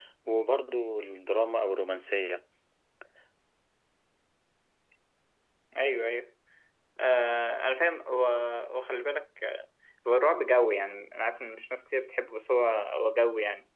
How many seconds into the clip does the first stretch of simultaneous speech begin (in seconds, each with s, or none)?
none